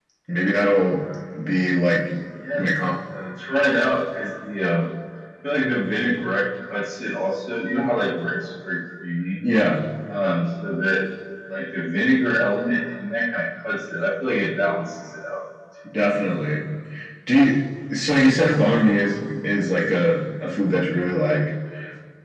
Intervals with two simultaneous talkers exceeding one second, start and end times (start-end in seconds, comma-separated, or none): none